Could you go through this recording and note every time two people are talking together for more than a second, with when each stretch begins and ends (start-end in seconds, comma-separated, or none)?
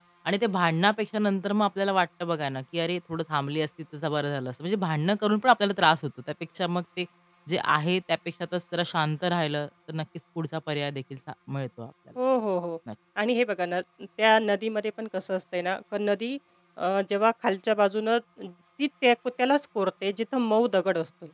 none